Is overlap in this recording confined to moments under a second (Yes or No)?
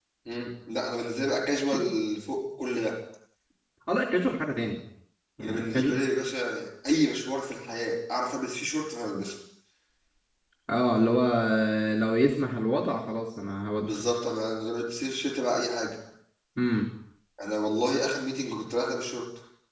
Yes